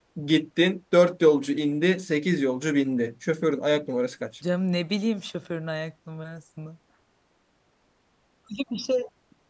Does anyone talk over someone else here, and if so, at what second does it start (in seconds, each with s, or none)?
none